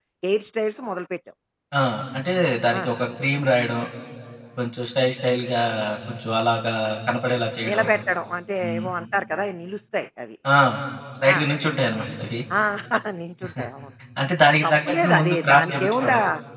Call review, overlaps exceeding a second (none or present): present